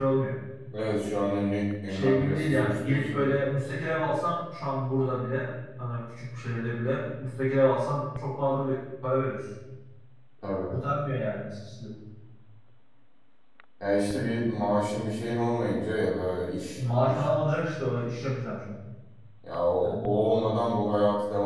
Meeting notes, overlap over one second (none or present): present